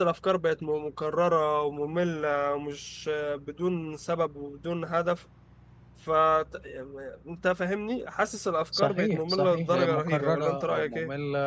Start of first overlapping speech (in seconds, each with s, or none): 8.7 s